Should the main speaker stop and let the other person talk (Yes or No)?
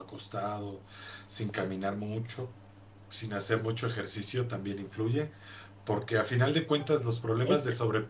No